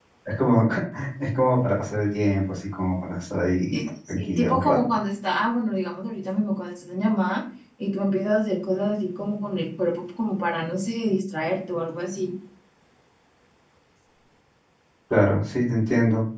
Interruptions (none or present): present